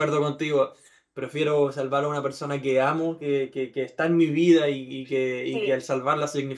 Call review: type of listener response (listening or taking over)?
listening